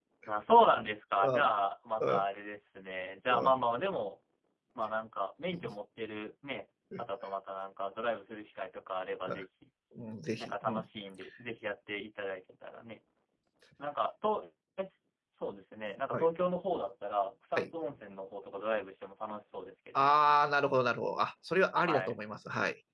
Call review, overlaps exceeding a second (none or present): none